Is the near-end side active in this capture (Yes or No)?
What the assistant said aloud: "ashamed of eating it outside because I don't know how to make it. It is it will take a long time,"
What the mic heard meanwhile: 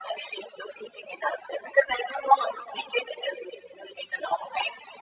No